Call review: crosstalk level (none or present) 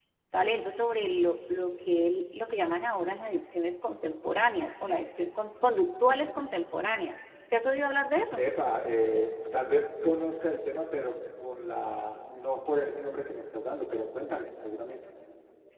none